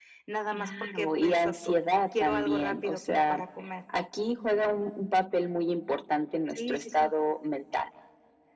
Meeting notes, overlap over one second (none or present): present